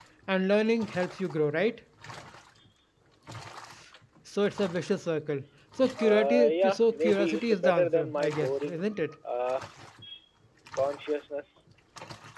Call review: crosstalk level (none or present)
present